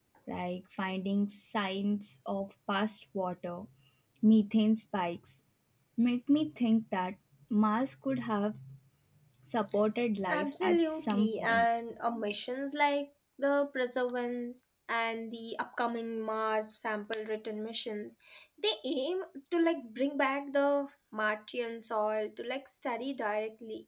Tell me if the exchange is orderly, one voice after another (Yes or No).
No